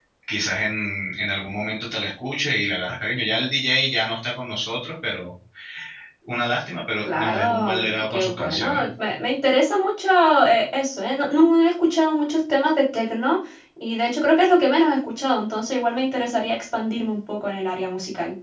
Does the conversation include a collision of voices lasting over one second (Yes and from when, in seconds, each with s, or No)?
Yes, from 7.1 s